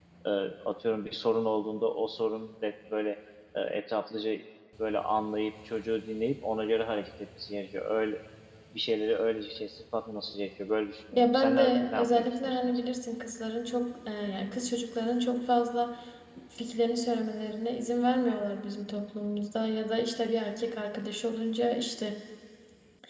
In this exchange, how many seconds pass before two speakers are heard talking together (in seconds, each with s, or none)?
11.1 s